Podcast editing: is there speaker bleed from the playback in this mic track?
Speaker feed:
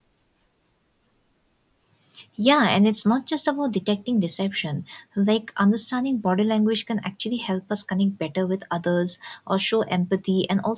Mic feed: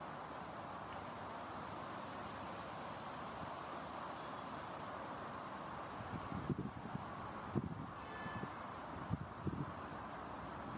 No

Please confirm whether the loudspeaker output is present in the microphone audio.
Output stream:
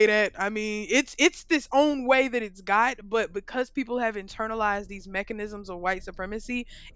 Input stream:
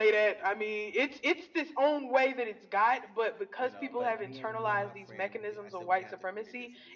Yes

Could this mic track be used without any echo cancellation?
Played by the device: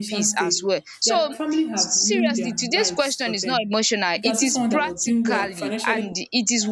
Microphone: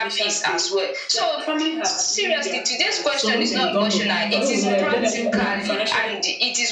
No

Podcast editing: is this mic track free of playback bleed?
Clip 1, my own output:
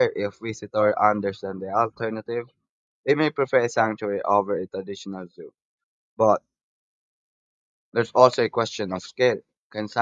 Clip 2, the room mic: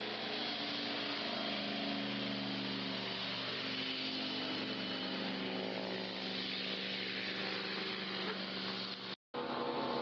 Yes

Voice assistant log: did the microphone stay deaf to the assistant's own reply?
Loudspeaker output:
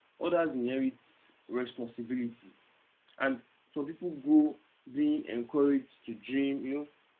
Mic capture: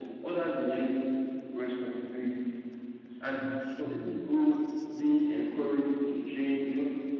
No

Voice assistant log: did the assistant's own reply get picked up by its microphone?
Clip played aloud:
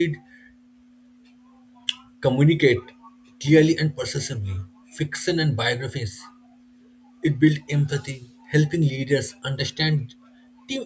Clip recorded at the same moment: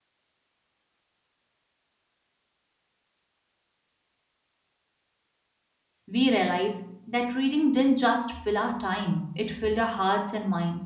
No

